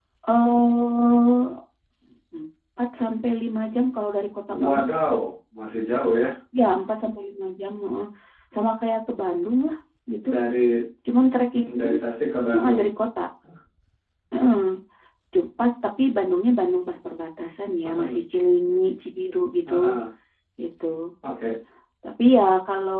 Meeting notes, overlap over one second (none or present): none